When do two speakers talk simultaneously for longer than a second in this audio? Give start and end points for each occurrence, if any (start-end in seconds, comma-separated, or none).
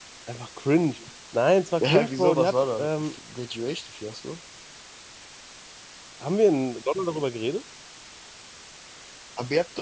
1.8-3.1